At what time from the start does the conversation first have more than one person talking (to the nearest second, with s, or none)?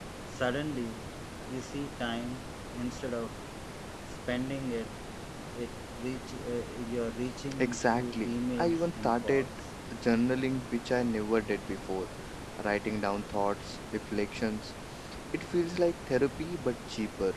8 s